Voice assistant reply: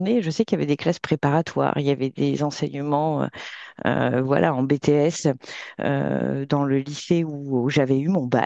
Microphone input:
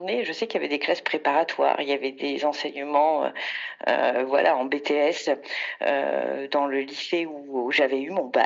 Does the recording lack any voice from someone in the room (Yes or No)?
Yes